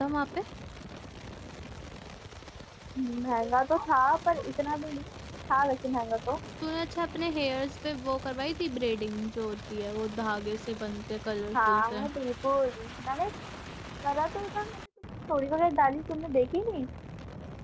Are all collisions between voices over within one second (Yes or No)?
Yes